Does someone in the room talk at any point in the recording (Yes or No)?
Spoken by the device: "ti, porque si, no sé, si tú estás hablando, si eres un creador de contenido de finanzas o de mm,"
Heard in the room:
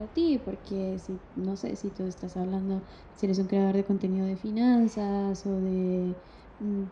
No